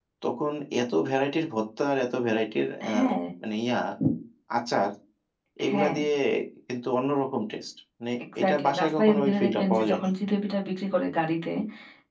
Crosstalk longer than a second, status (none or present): present